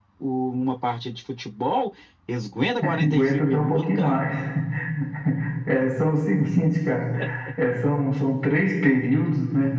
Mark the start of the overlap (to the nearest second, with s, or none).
3 s